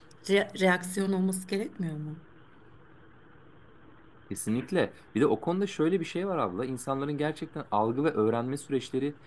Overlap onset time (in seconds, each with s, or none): none